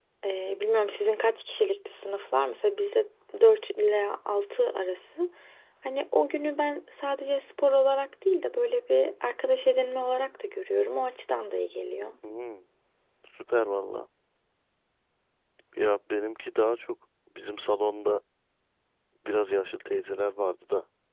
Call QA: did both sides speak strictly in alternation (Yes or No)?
Yes